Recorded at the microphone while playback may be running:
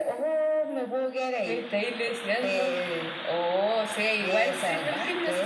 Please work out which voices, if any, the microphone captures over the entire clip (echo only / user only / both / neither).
both